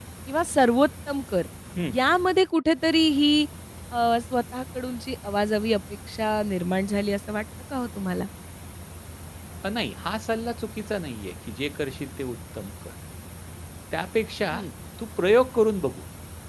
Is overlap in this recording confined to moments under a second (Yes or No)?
Yes